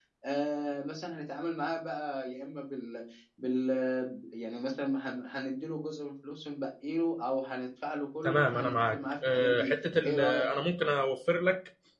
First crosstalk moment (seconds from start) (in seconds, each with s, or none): 8.2 s